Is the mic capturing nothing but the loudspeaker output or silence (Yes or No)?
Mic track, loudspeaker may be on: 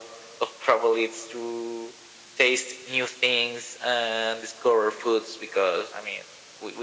Yes